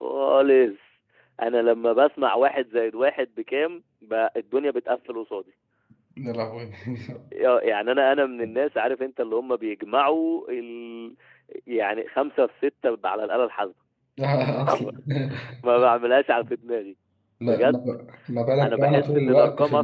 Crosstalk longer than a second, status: present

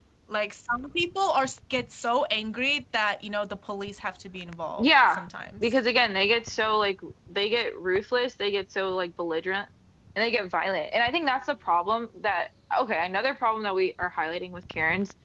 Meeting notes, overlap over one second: none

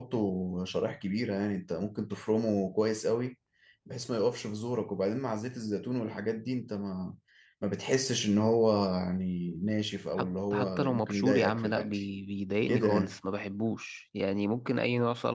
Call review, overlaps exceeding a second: present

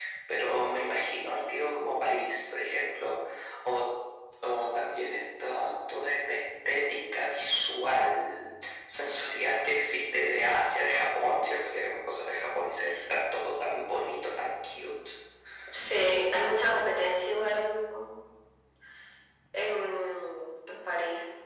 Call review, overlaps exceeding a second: none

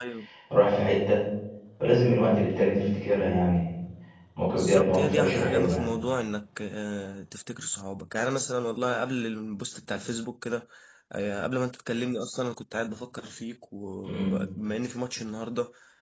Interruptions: present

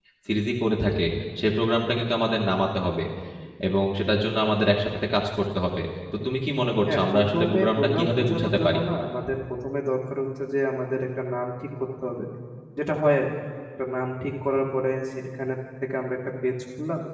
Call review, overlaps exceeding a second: present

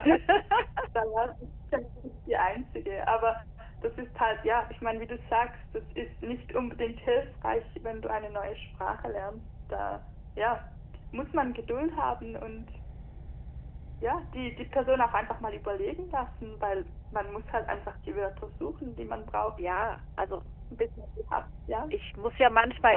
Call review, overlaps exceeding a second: none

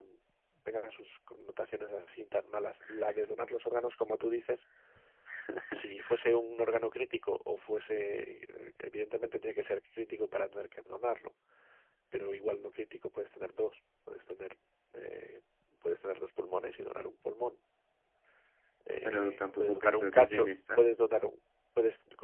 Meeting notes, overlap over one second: present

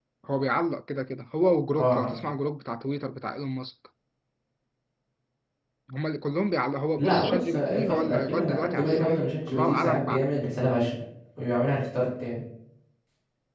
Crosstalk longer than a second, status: present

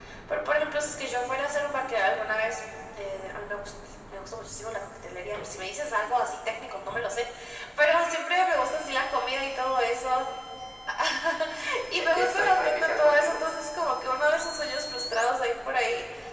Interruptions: present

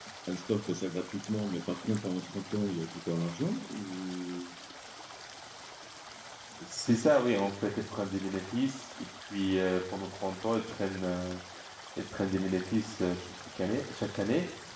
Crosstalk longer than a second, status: none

